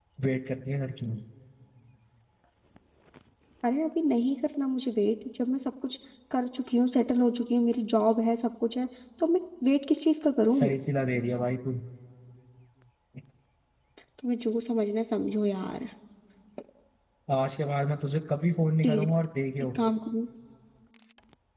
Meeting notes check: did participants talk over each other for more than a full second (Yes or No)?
No